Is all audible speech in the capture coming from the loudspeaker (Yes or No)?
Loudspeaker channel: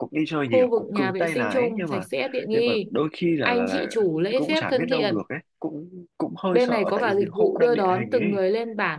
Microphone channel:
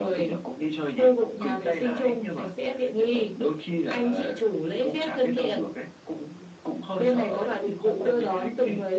Yes